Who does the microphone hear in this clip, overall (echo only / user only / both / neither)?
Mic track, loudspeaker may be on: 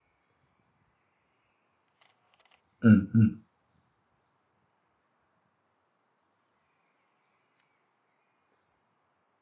user only